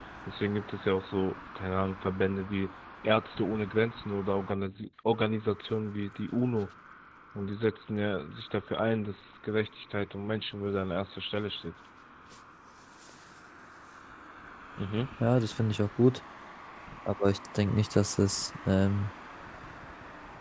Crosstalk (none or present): none